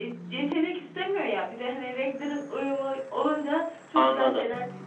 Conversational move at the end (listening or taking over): taking over